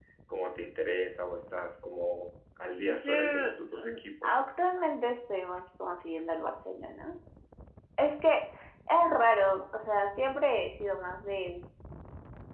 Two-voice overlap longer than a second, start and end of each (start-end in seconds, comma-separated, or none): 2.9-4.4